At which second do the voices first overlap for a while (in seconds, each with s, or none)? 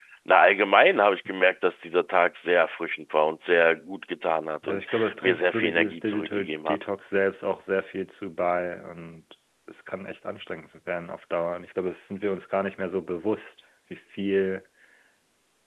4.6 s